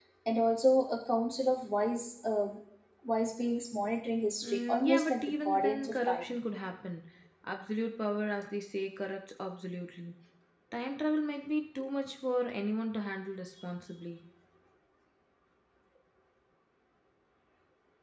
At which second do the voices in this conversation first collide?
4.4 s

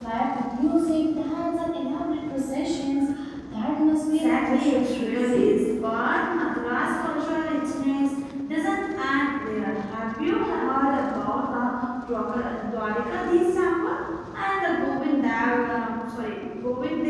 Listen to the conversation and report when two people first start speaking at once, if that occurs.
4.1 s

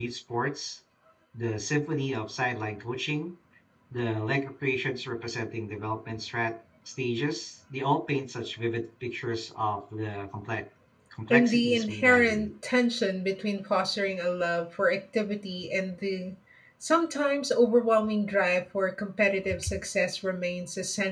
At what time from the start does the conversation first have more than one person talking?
11.3 s

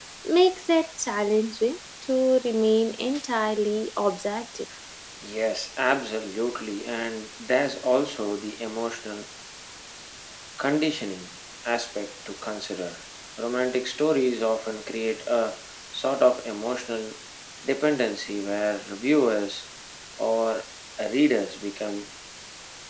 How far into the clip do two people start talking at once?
none

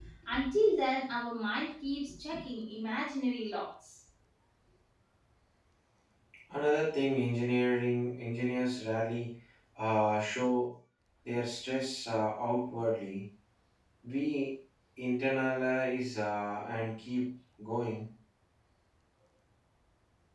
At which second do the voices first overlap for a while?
none

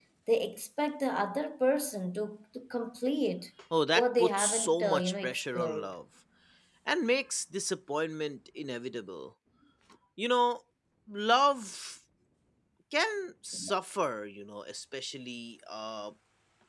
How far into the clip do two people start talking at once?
4.0 s

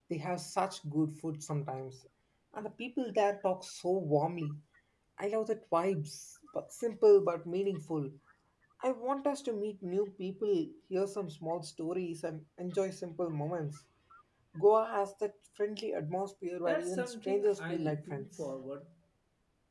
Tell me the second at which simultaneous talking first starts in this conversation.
16.6 s

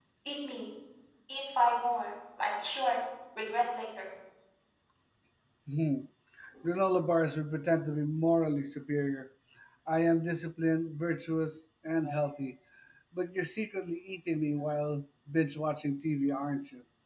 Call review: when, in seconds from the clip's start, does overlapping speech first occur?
none

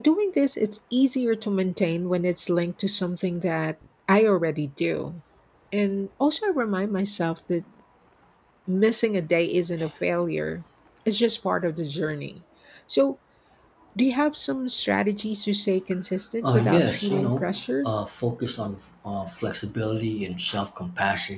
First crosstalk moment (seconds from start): 16.4 s

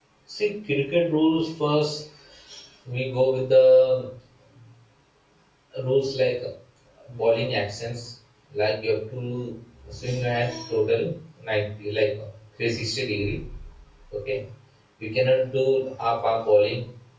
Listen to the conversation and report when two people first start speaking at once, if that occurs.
none

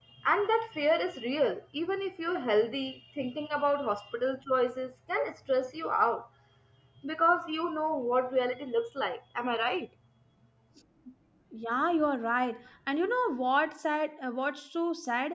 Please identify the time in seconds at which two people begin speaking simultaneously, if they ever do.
none

